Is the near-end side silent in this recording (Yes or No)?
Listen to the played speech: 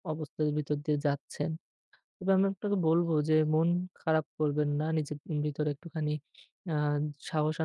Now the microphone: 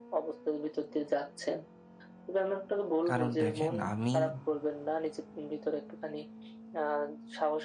No